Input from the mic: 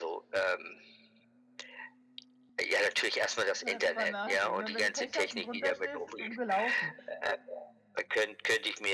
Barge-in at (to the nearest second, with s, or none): 4 s